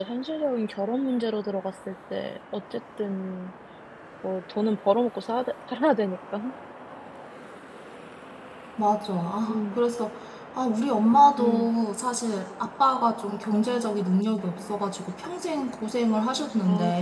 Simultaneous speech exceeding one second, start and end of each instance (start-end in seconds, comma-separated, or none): none